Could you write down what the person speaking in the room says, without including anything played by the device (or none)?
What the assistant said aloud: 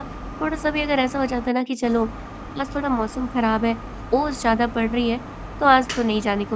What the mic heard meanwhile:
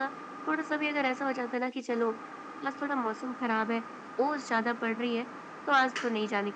none